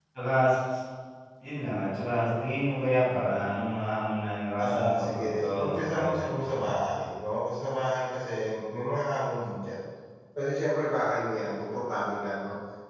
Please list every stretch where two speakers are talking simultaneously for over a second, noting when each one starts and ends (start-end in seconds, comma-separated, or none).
4.6-6.8